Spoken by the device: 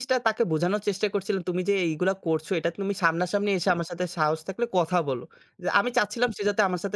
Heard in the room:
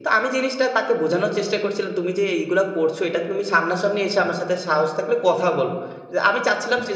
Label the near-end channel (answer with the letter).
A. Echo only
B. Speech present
A